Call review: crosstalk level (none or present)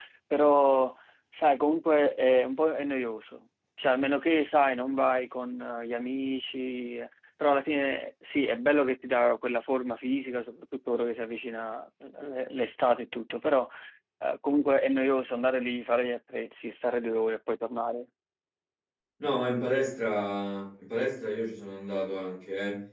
none